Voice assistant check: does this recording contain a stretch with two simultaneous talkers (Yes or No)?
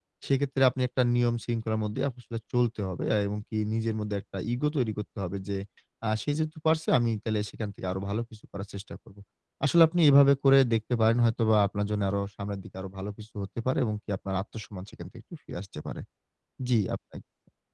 No